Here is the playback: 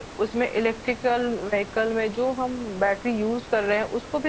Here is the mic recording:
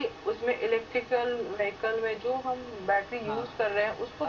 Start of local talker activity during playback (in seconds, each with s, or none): 3.3 s